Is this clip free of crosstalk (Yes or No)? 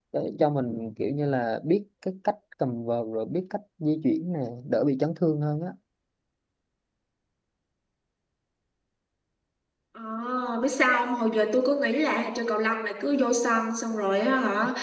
Yes